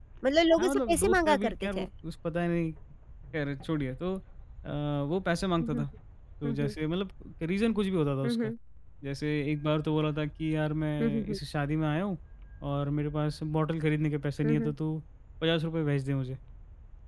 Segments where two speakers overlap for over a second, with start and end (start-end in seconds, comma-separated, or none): 0.6-1.9